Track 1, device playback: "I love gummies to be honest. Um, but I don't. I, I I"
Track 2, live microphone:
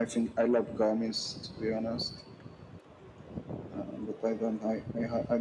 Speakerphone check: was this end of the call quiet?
Yes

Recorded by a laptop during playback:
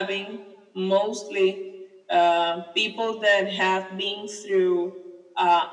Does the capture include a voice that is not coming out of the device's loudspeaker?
No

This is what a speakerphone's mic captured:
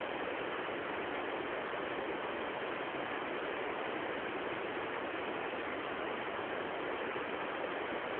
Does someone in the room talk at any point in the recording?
No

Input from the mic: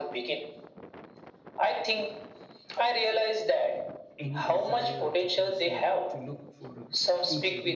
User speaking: Yes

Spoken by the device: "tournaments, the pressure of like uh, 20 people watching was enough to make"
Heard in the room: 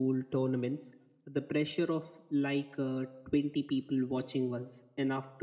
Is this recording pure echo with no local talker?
Yes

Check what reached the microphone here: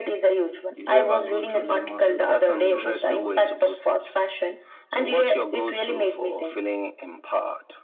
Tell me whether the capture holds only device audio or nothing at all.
No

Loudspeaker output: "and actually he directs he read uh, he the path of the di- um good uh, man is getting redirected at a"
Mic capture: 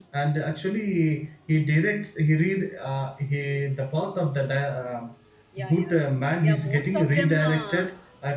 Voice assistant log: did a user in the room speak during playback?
Yes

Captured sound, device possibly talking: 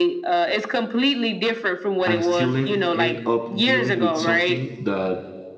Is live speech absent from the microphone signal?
No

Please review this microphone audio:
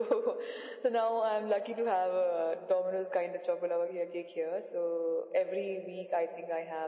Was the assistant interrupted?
No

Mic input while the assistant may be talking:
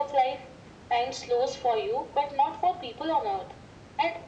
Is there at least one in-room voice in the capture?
No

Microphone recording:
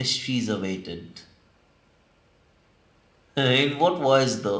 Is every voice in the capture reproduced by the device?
No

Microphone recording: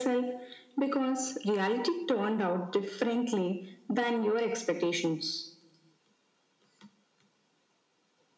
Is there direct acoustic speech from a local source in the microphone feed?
No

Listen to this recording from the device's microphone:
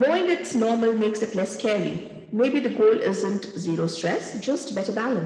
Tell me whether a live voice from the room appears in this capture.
No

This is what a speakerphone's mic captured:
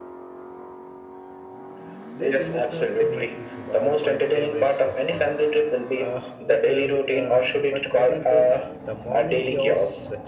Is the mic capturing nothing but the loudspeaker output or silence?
No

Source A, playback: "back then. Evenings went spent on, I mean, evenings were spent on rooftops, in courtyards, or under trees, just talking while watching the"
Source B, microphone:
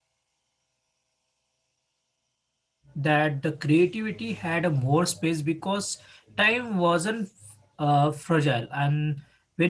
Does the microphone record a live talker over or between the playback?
Yes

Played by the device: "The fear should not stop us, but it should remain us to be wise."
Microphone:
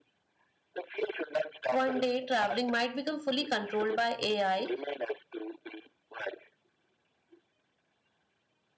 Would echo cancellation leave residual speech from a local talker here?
Yes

